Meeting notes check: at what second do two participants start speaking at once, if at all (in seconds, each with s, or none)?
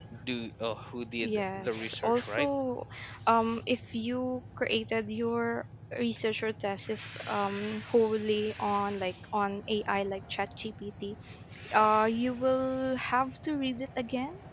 1.2 s